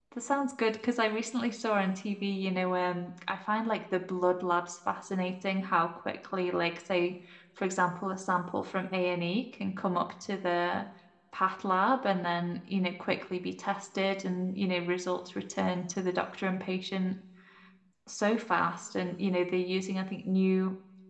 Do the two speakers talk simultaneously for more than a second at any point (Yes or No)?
No